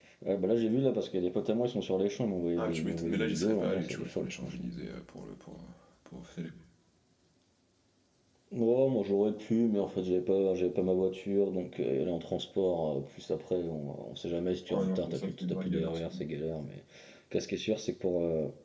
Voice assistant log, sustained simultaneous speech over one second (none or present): present